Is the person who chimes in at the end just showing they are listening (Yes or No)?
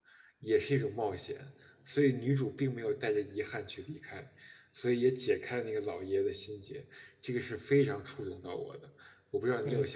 No